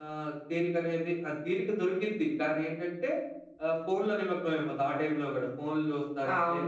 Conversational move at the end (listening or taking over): taking over